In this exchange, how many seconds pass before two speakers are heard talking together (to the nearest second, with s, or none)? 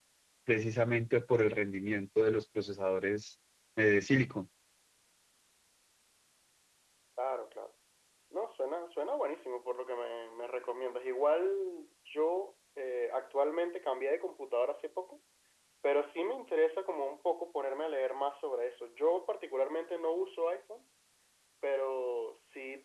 none